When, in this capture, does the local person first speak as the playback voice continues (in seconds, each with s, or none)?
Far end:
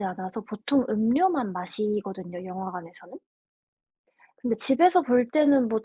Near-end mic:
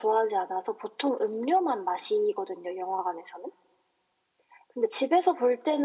none